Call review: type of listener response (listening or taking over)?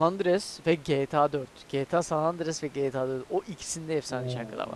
taking over